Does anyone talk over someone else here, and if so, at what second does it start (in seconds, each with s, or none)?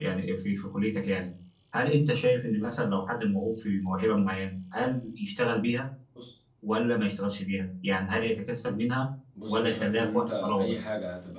9.5 s